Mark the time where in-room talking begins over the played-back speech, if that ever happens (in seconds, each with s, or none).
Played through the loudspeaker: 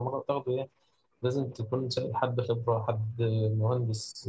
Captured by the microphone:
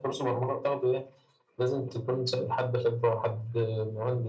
none